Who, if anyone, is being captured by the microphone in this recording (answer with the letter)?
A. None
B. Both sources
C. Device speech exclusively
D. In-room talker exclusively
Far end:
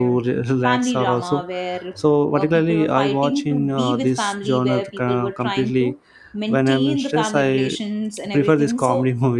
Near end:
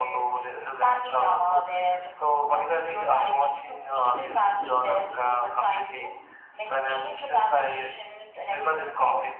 C